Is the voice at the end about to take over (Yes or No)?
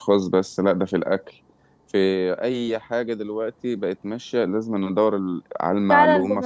Yes